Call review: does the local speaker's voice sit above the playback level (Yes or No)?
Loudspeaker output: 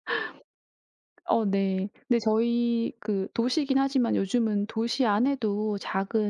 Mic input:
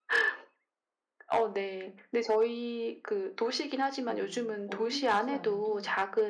No